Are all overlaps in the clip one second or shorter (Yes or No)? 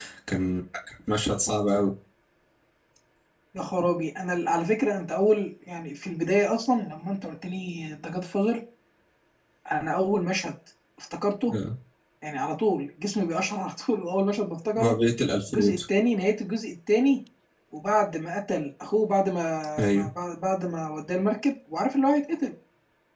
Yes